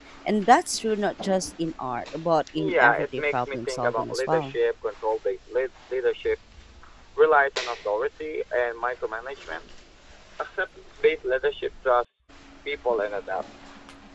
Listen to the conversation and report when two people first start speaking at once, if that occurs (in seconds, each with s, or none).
2.6 s